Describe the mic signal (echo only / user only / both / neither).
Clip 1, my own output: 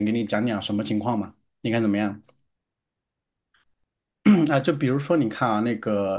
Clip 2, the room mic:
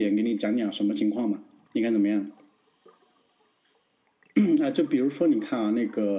echo only